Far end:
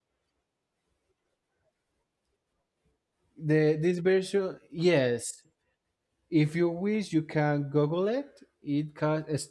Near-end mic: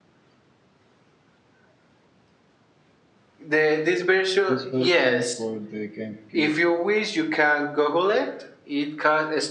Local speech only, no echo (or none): this version for the GameCube